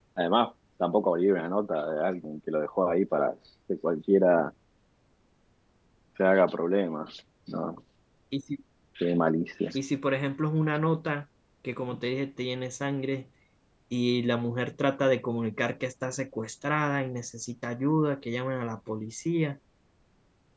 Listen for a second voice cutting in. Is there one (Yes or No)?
No